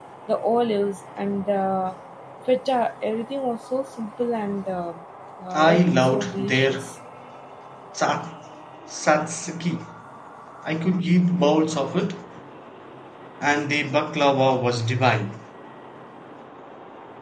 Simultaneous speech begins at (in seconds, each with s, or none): 5.5 s